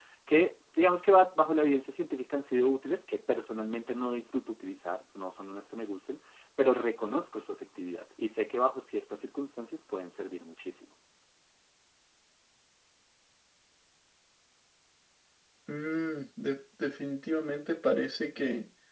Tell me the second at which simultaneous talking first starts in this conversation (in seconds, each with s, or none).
none